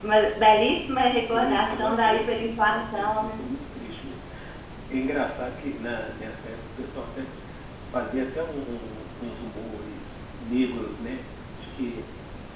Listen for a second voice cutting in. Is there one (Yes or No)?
Yes